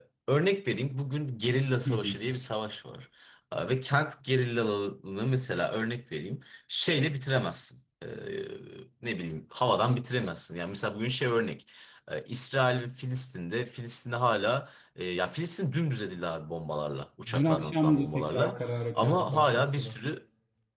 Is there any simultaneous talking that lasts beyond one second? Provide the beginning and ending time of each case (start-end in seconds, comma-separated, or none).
17.3-19.9